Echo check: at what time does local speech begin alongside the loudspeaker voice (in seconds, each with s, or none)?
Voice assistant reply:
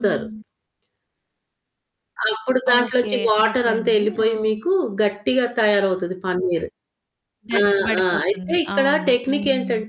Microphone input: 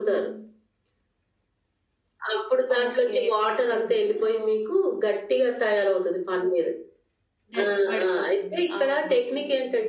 none